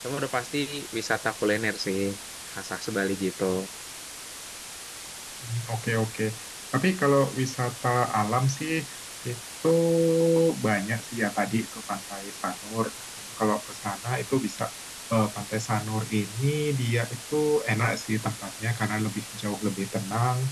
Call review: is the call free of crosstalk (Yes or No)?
Yes